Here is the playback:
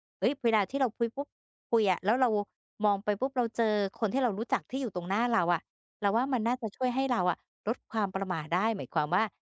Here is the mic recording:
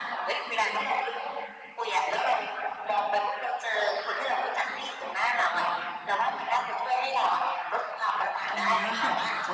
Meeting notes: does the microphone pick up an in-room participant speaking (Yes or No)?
Yes